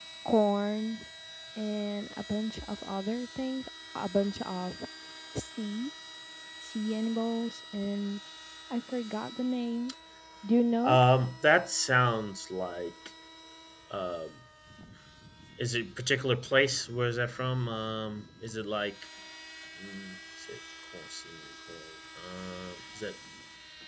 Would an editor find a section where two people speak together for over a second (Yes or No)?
No